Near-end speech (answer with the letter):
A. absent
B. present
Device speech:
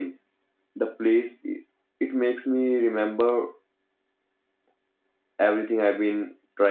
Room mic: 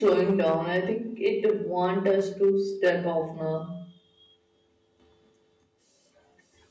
B